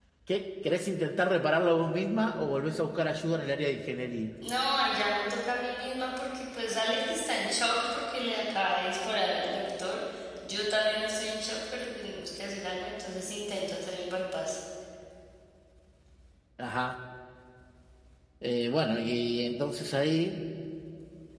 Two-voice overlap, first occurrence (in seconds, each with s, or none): none